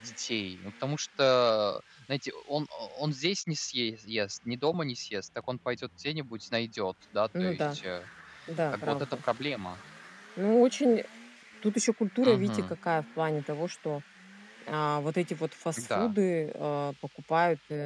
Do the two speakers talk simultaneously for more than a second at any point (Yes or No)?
No